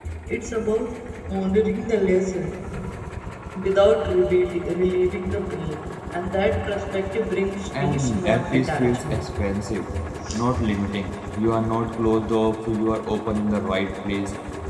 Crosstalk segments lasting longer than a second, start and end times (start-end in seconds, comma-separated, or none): 7.8-9.2